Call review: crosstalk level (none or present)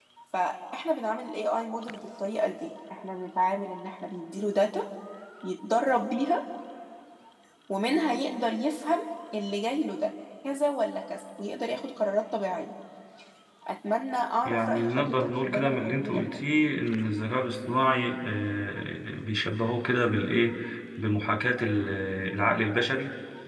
present